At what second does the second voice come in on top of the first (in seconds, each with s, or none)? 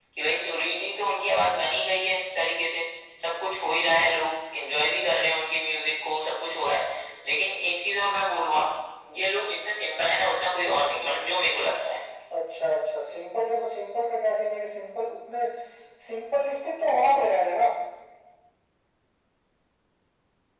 none